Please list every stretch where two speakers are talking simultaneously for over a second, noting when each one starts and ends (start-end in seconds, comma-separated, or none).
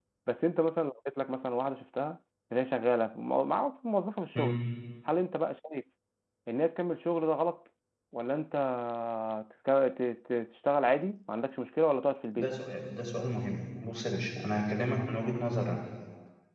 none